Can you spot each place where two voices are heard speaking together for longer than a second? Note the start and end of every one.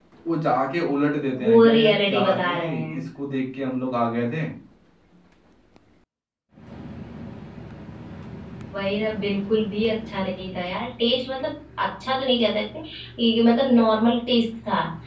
1.4-3.0

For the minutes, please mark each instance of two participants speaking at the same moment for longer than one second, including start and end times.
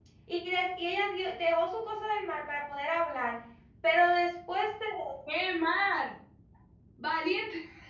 none

